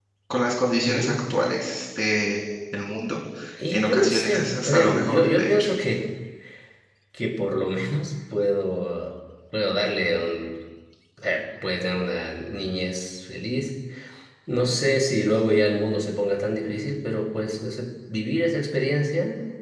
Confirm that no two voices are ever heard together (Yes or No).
No